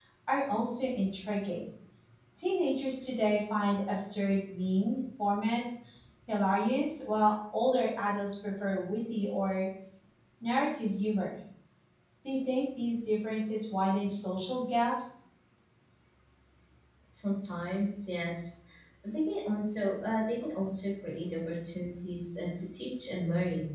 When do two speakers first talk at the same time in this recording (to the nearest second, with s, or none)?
none